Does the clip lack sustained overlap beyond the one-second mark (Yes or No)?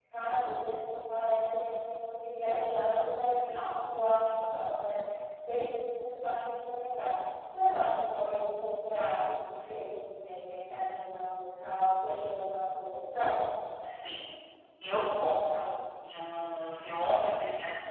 Yes